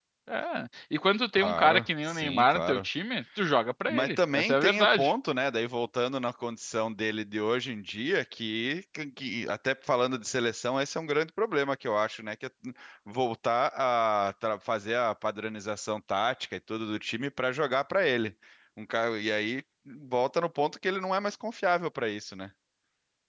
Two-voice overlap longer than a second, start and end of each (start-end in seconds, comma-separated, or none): 1.3-2.9, 3.9-5.1